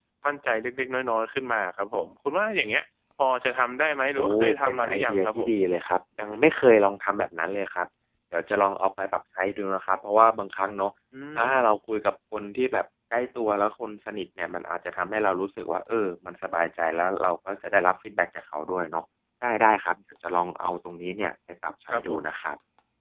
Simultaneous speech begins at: 4.2 s

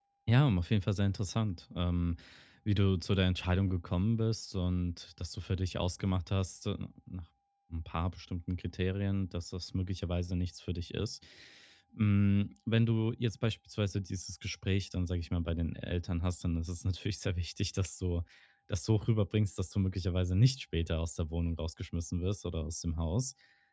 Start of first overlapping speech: none

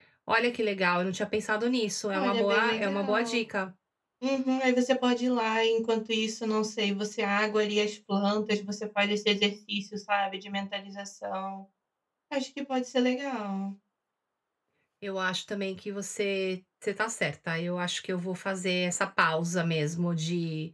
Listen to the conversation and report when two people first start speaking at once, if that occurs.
2.1 s

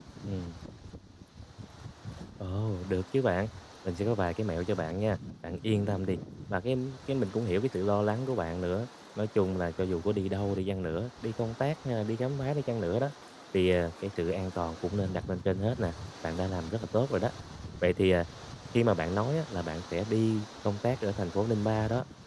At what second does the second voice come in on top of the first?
none

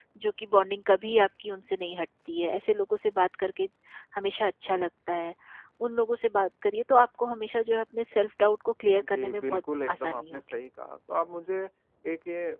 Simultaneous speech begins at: 9.1 s

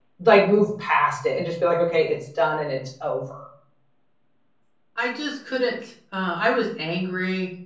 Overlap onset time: none

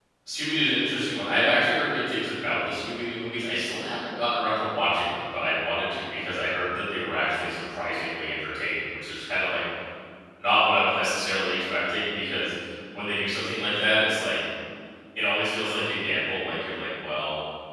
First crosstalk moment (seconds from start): none

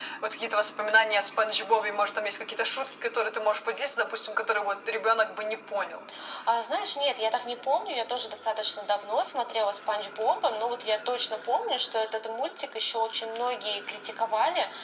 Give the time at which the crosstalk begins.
none

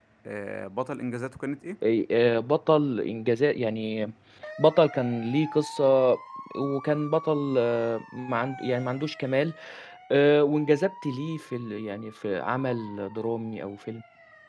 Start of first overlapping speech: none

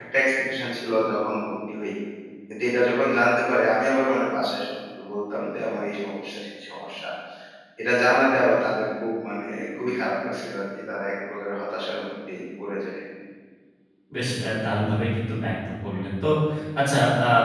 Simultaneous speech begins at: none

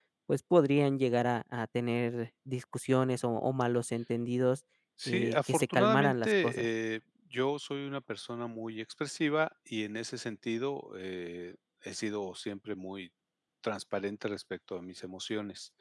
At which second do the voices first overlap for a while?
5.1 s

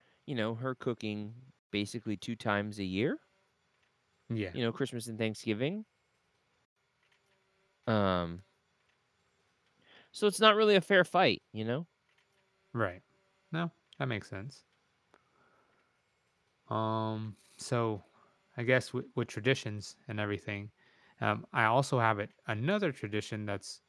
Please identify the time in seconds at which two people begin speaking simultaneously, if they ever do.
none

